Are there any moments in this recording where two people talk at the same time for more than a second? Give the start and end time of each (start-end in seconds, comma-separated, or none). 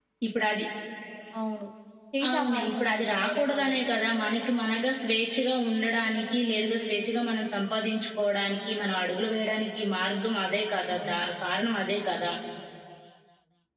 2.3-3.9